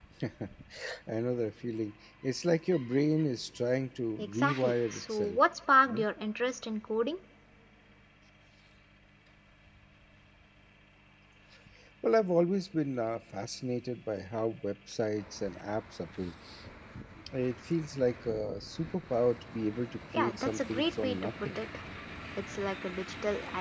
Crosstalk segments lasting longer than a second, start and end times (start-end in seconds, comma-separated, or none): 4.2-5.4, 20.1-21.6